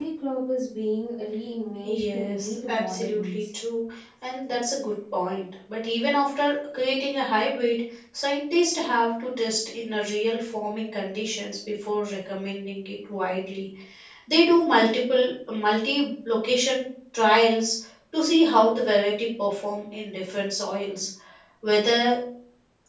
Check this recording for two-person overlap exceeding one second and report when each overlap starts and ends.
1.8-3.4

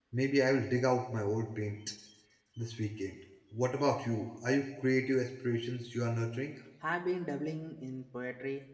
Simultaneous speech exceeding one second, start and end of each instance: none

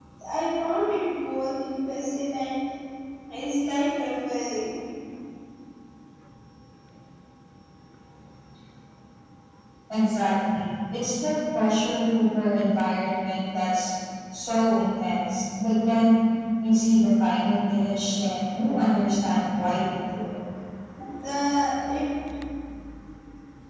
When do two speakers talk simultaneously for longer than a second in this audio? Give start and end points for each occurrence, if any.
none

